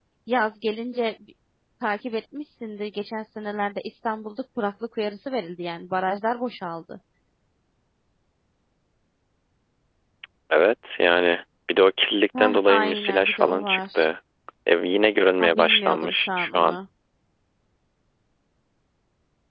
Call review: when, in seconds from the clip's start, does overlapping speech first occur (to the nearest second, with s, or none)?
12 s